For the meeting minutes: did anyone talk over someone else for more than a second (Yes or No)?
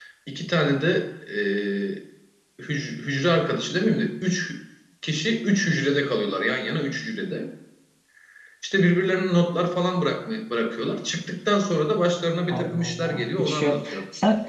Yes